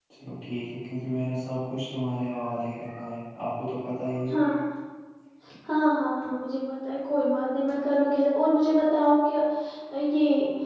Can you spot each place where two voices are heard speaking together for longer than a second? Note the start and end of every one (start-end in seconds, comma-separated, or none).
none